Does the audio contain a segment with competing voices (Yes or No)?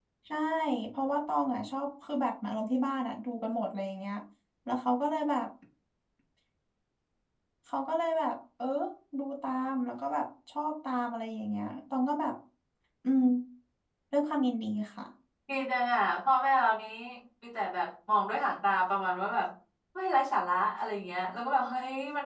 No